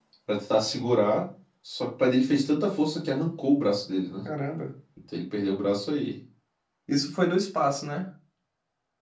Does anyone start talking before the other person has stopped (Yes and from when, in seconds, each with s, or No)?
No